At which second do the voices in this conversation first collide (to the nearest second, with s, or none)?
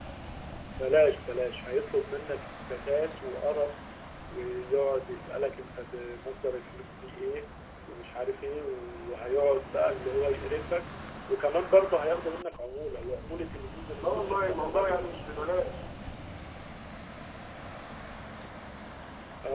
14 s